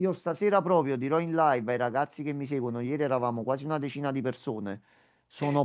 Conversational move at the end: listening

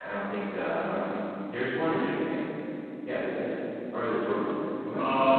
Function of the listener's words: taking over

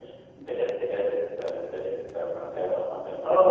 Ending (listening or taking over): taking over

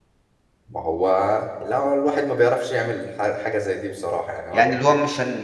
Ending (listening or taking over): taking over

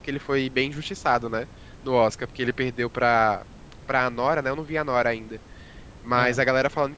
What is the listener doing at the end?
listening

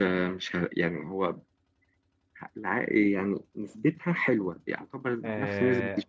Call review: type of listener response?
taking over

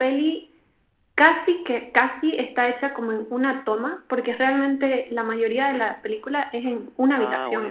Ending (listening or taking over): listening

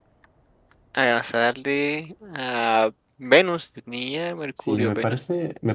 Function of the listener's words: taking over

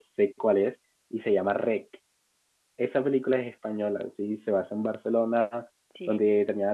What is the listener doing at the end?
listening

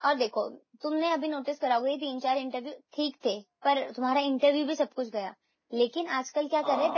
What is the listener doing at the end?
listening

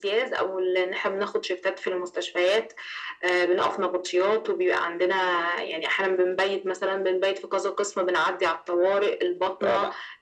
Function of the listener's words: listening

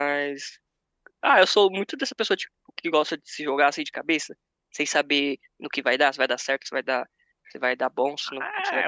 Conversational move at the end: taking over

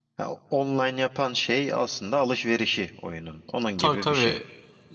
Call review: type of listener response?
taking over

